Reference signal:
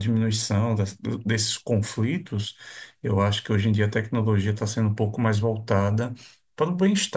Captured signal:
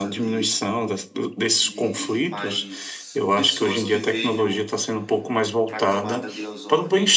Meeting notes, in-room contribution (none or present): present